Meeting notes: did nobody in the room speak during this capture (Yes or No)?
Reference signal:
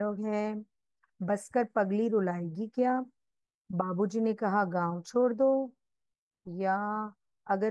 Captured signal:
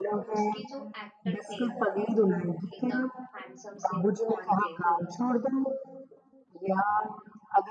No